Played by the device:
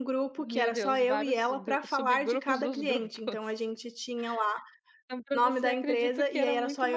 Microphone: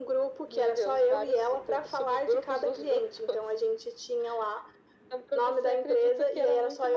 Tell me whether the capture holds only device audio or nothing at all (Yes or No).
Yes